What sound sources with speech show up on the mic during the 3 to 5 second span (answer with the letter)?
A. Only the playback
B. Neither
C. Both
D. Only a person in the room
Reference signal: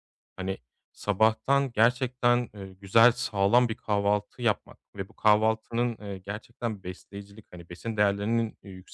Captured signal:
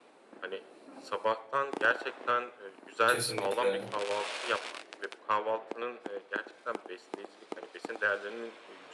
C